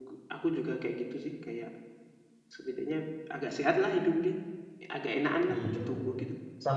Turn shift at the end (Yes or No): Yes